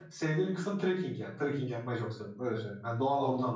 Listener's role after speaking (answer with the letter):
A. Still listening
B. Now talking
B